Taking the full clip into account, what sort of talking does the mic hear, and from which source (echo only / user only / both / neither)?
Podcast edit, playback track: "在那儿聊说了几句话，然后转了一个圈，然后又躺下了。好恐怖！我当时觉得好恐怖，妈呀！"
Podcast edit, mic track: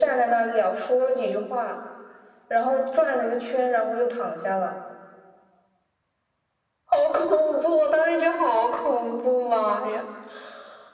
echo only